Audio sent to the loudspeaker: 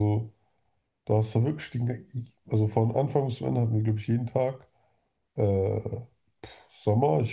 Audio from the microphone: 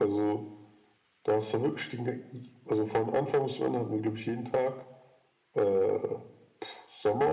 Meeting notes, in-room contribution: none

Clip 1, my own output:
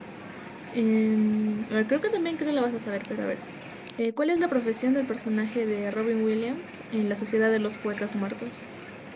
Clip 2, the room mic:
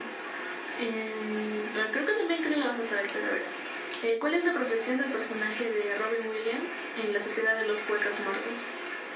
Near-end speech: none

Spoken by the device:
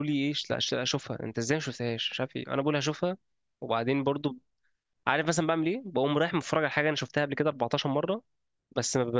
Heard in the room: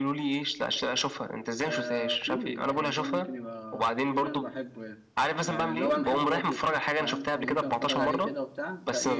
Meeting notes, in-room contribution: present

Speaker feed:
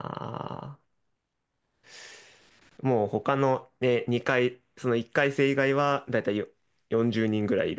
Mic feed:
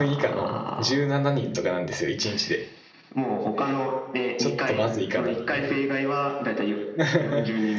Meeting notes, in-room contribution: present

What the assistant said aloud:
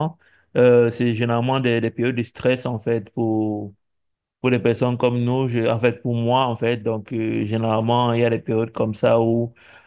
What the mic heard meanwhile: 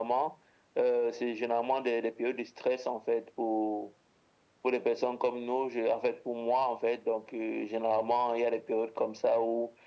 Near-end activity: none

